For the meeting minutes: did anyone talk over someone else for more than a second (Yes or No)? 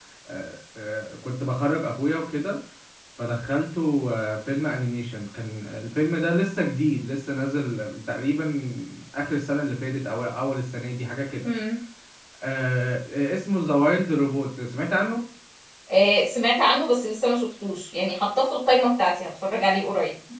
No